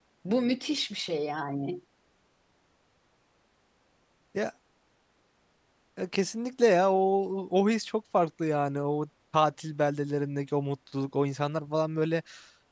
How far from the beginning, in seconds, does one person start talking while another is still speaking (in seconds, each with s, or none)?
none